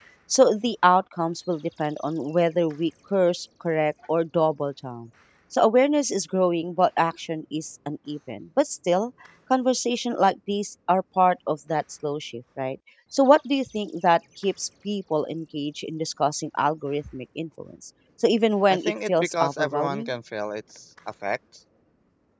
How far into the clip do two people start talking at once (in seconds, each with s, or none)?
18.7 s